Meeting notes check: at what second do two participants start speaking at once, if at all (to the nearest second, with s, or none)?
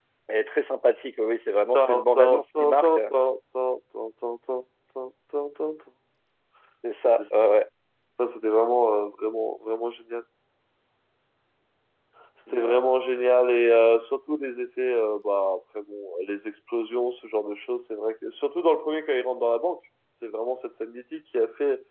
2 s